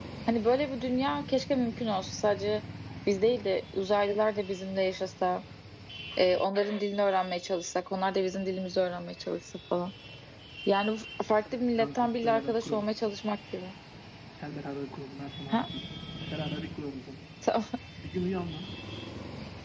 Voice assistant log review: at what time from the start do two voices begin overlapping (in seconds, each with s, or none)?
11.5 s